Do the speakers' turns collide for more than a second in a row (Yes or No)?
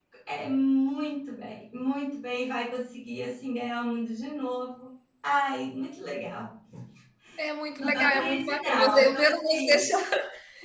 Yes